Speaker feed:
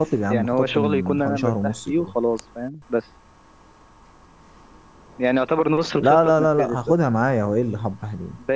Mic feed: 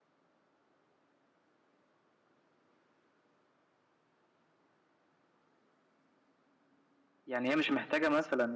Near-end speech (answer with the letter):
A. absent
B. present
B